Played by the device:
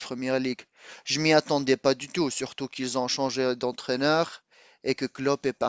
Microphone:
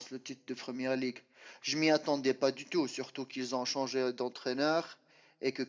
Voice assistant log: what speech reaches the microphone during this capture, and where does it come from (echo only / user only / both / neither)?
echo only